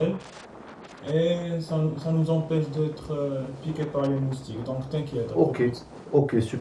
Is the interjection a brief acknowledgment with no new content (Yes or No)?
No